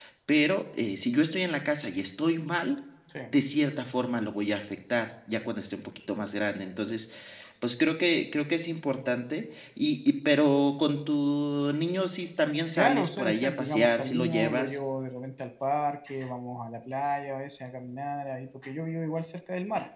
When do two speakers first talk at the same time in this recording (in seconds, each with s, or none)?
12.7 s